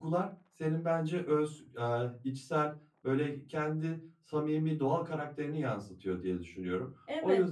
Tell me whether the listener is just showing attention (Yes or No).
No